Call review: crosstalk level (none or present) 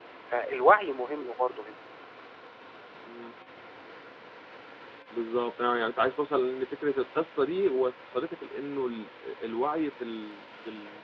none